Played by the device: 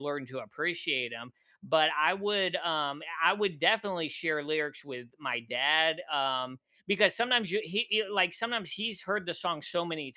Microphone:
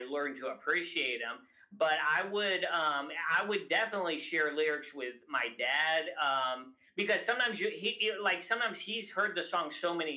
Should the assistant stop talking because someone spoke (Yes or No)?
No